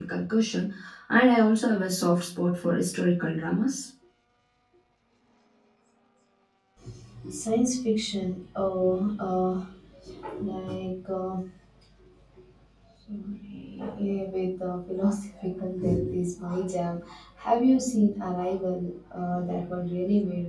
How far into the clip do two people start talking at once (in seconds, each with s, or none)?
none